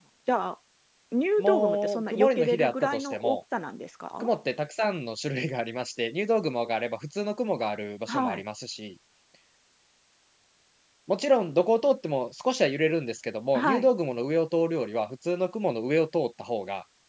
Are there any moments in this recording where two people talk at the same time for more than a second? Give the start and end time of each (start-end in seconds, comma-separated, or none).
1.4-3.4